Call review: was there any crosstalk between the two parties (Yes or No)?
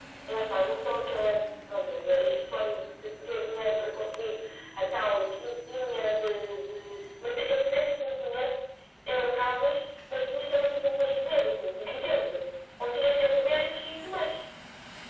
No